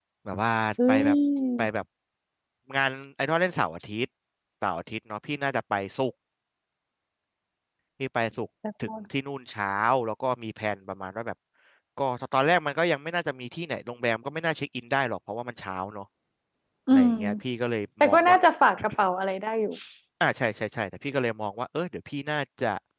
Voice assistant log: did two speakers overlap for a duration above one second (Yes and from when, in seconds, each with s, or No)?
No